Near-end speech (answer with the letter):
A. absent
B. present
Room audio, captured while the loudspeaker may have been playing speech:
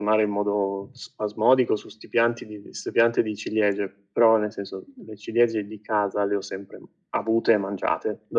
A